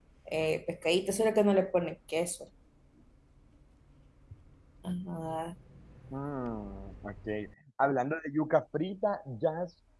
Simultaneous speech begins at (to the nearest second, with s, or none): none